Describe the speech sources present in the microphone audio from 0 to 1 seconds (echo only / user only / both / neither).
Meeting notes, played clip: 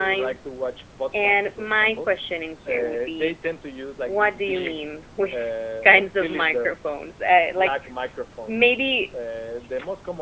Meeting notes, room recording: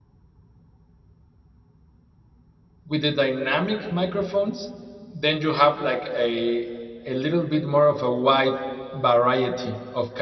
neither